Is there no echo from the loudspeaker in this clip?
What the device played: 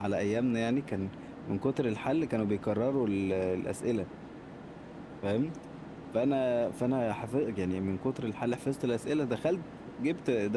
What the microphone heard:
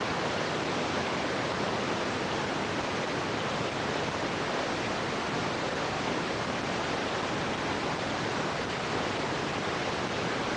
Yes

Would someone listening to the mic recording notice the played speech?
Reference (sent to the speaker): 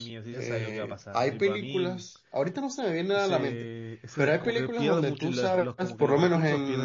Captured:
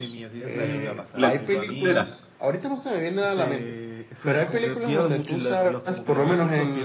Yes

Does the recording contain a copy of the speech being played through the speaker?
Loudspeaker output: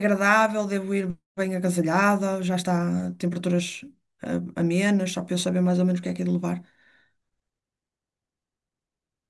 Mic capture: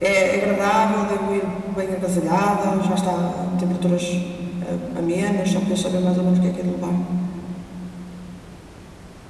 Yes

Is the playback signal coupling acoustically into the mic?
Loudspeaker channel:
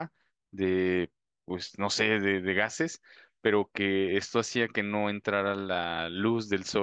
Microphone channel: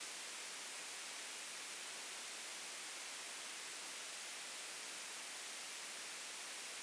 No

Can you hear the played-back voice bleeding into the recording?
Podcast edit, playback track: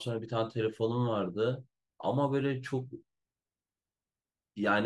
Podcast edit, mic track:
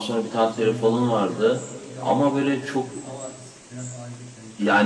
Yes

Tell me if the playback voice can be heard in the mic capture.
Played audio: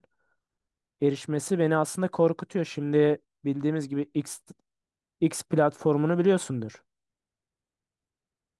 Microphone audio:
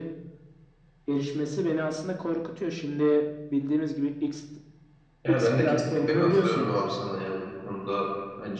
Yes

